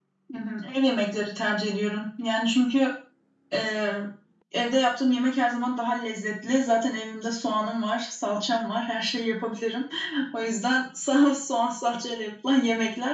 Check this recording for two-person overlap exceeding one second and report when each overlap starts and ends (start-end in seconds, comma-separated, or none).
none